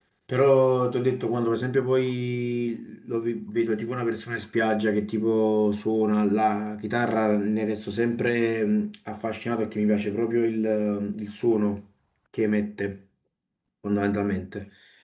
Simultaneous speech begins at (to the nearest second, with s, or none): none